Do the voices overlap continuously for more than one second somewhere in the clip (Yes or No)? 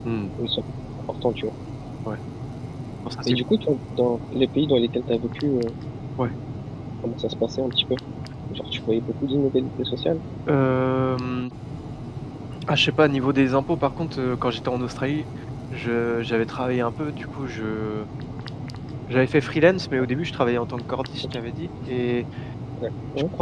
No